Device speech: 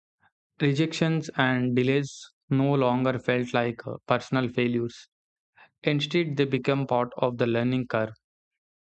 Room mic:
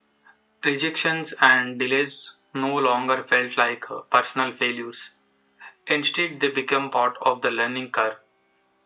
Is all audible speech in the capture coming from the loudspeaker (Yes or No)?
Yes